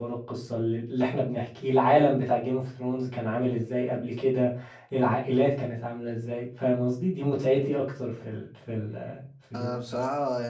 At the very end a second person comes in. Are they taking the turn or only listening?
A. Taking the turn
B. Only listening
A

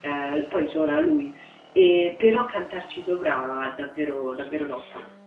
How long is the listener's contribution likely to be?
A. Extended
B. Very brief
A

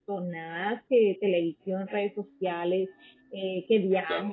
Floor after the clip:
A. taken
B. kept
B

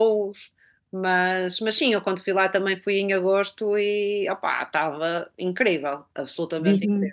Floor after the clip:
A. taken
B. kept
A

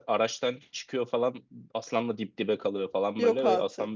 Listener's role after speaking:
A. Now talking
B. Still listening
B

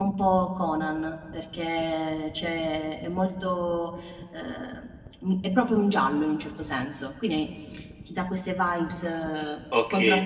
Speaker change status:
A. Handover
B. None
A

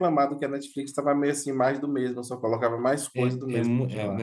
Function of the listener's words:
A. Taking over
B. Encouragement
A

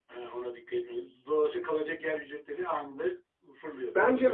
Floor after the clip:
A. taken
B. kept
A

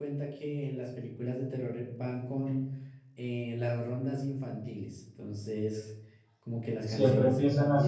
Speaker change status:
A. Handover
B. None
A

